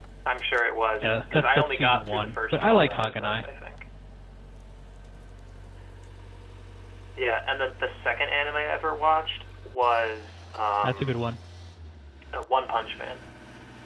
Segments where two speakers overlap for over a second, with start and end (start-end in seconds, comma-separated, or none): 1.0-3.4